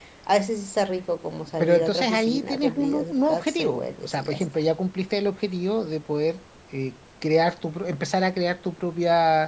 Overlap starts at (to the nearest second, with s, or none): 2 s